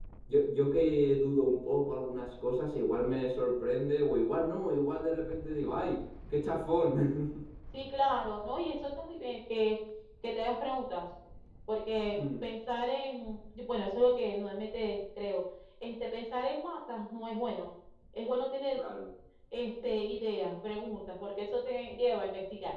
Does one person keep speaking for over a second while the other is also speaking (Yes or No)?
No